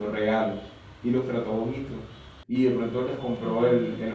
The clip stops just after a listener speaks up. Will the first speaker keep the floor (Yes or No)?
Yes